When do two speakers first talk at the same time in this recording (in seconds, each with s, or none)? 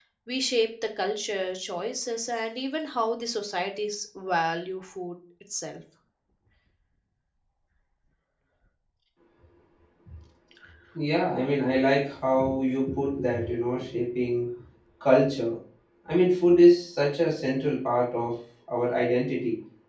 none